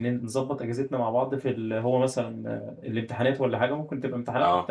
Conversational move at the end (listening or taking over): listening